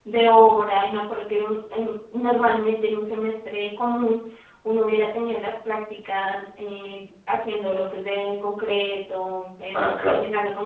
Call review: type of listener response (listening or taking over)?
listening